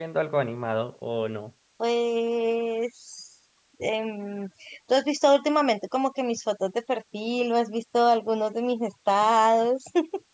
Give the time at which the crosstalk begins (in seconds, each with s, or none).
none